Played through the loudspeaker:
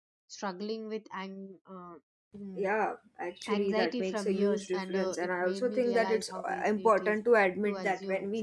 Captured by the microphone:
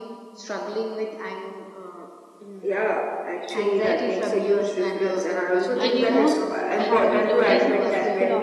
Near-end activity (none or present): present